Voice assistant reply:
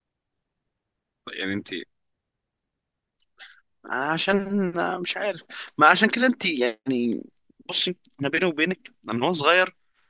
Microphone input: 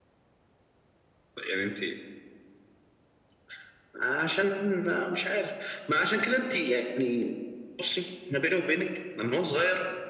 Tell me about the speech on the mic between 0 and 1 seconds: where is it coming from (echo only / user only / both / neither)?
neither